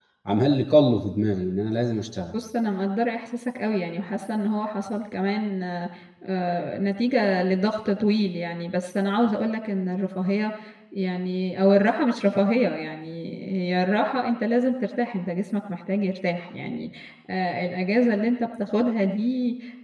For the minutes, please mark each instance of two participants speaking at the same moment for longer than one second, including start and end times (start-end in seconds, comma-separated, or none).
none